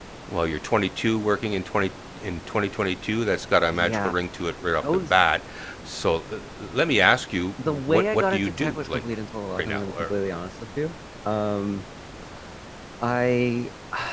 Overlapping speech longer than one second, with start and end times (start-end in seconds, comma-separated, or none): 7.7-9.0